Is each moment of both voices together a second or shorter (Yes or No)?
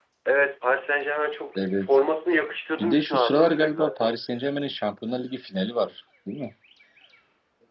No